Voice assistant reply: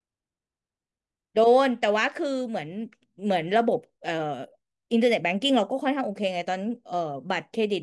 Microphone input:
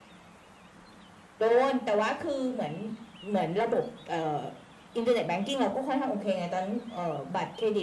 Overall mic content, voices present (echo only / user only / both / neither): echo only